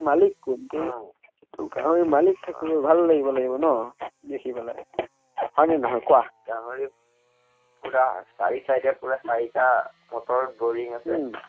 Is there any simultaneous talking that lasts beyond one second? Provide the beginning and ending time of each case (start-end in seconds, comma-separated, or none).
none